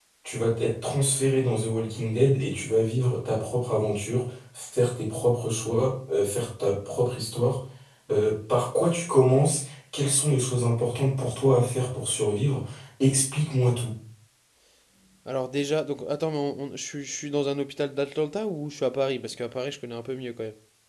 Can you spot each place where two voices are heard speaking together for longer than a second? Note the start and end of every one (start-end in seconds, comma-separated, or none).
none